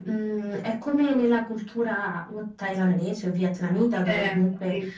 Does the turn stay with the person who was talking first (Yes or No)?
Yes